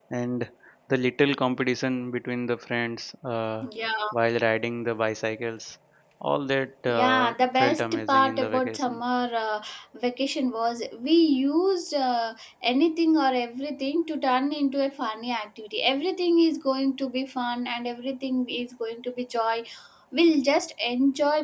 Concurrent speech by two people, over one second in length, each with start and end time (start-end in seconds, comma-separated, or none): 6.9-9.0